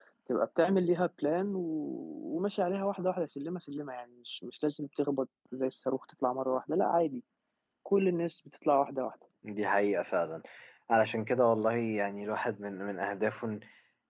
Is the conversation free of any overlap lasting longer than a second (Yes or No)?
Yes